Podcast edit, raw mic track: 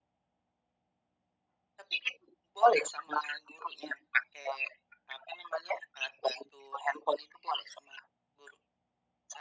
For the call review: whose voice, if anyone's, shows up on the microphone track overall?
echo only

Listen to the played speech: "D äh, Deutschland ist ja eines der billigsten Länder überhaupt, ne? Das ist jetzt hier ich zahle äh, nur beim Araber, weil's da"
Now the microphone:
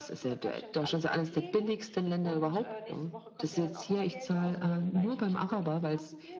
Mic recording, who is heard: both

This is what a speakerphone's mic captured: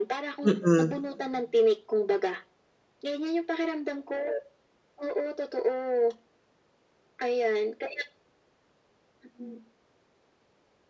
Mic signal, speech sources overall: both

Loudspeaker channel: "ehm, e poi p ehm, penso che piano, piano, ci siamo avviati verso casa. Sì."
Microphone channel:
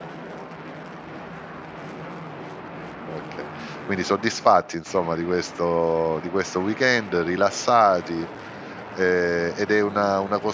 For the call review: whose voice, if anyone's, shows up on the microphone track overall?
user only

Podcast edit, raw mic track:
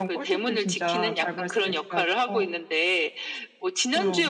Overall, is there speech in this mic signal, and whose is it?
both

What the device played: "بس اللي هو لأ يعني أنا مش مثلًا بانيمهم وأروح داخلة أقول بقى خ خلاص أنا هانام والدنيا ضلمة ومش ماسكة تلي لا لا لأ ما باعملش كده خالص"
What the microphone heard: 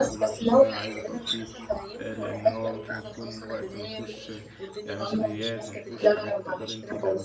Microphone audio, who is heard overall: both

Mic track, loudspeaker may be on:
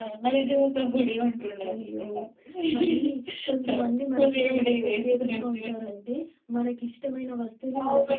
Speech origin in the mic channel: echo only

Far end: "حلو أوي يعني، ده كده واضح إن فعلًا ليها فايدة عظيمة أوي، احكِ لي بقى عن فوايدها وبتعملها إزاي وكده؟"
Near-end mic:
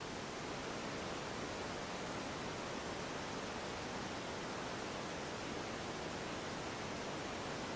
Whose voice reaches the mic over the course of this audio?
neither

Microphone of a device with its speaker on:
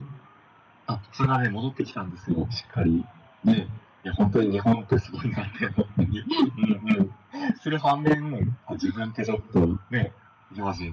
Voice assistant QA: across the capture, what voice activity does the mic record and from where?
echo only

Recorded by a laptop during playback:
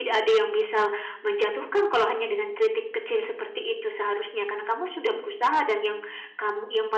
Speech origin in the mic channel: echo only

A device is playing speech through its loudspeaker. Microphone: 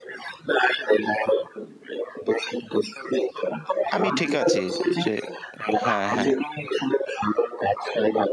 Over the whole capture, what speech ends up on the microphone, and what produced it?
both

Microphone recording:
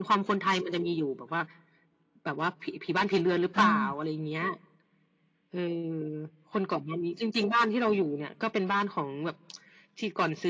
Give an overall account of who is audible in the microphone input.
both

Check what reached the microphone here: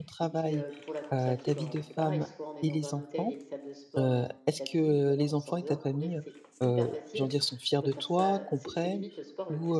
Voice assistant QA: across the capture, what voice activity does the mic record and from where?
both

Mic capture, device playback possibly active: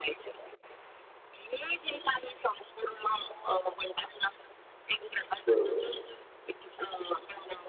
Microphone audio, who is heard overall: both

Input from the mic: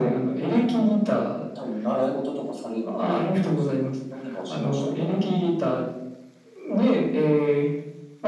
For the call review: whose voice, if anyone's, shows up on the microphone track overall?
echo only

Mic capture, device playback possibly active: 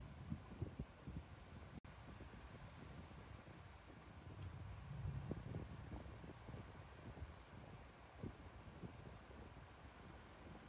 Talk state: neither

